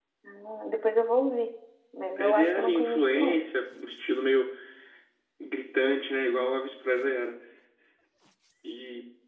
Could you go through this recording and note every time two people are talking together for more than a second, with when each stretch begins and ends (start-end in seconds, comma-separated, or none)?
2.2-3.4